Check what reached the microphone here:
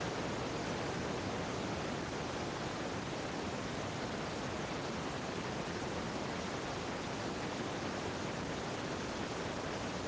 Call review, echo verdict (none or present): none